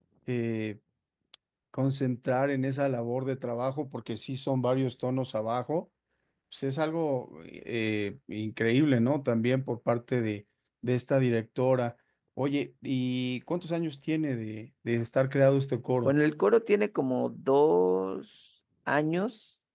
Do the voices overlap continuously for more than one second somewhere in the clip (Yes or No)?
No